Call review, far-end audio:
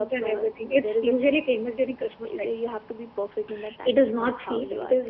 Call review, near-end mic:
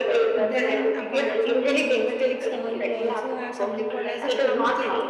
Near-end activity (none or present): present